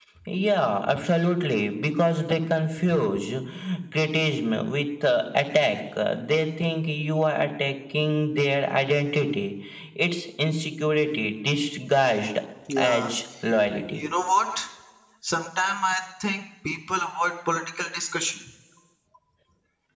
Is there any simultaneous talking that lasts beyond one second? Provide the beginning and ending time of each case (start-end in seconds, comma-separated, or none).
none